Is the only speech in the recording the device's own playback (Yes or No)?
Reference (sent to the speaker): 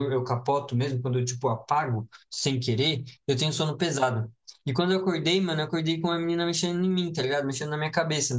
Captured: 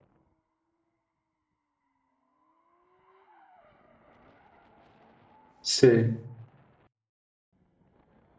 No